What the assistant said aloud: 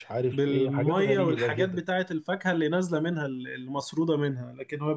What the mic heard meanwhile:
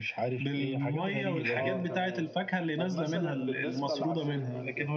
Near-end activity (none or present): present